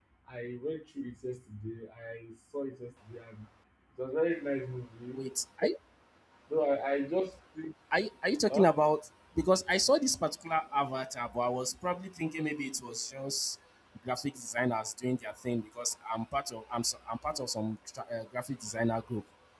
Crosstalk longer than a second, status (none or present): none